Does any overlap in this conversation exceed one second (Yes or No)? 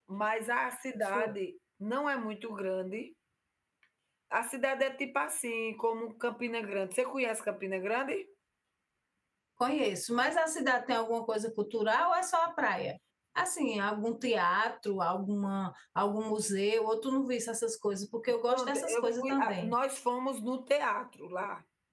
Yes